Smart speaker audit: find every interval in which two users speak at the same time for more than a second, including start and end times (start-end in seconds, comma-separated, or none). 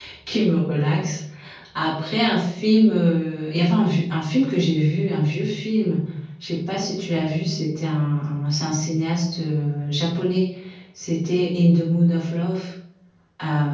none